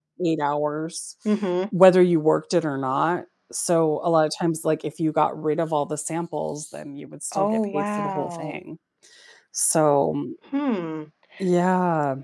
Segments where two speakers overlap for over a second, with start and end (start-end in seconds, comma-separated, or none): 7.3-8.5